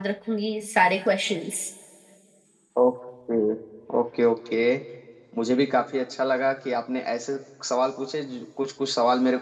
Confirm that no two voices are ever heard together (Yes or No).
Yes